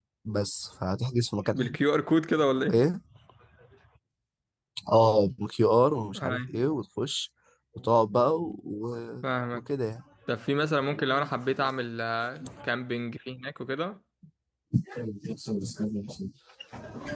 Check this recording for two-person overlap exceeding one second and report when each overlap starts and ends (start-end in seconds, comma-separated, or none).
none